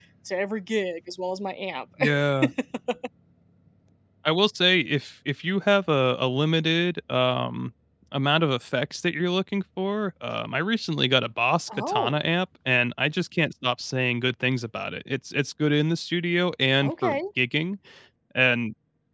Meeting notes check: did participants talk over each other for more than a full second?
No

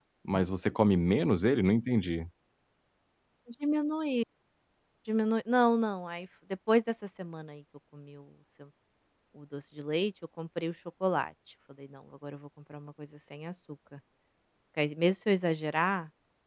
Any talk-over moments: No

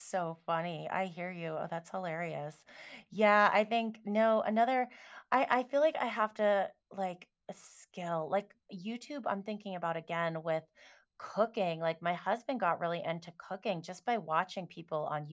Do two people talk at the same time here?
No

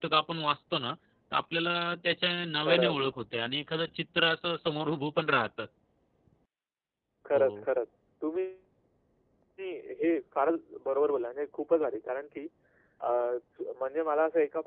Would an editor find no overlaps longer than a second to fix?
Yes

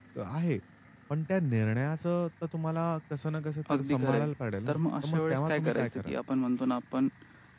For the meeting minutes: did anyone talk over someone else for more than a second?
Yes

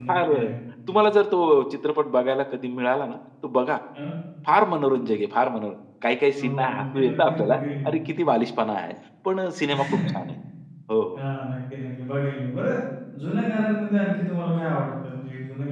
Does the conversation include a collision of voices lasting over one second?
Yes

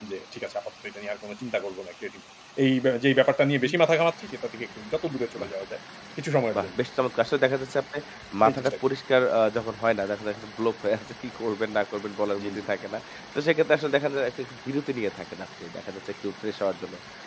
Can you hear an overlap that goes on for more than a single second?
No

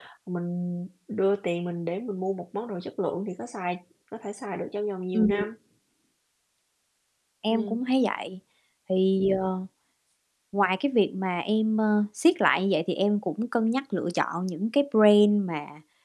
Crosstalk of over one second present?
No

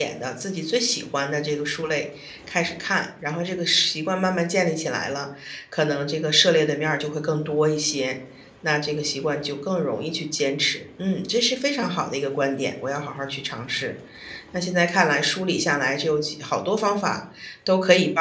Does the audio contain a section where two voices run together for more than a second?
No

